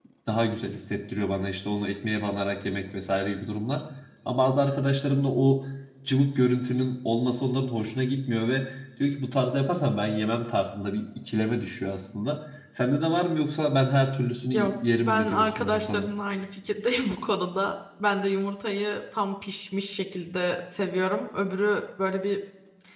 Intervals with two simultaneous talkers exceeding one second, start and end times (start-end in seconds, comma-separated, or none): 14.5-16.1